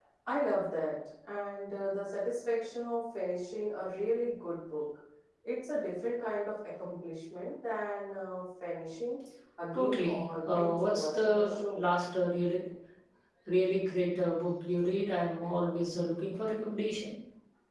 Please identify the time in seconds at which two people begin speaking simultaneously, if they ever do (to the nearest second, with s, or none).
10 s